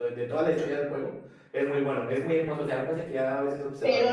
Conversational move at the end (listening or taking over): taking over